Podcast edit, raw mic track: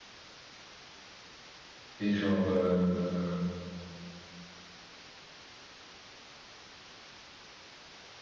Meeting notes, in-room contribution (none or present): present